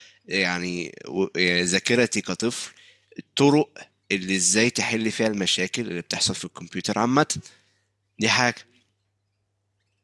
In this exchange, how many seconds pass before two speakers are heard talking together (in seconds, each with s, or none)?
none